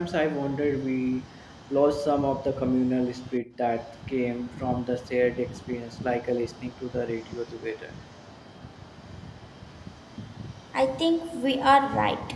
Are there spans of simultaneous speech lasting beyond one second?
No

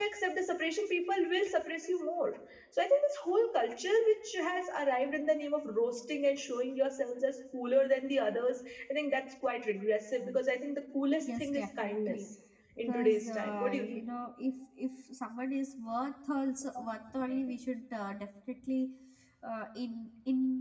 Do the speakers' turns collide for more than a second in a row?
Yes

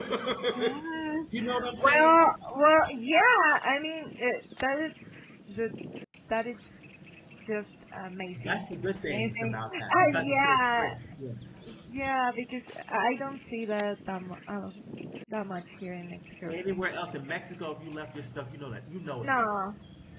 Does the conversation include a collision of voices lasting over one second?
Yes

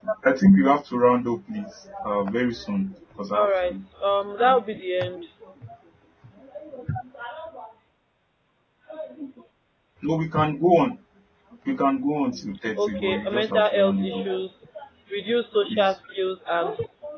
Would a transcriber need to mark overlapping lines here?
Yes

